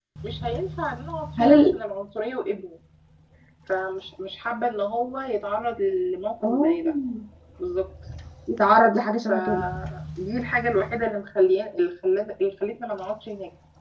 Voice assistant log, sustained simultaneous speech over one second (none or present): none